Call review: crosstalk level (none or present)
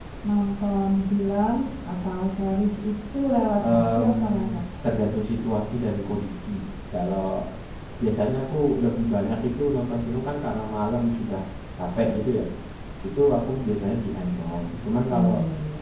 present